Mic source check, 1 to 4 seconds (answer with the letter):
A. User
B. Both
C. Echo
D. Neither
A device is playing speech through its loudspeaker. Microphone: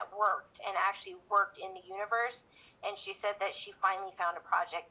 C